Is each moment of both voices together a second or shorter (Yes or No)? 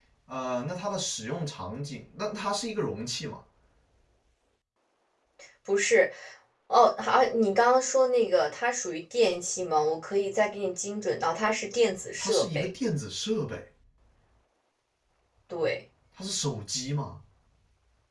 Yes